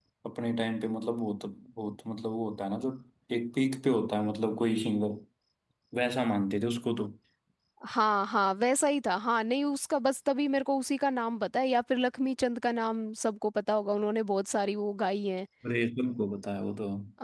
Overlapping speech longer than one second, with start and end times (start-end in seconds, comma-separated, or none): none